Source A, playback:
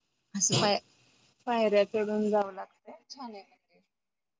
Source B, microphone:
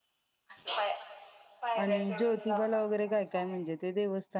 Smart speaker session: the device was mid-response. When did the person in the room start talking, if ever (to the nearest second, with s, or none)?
2 s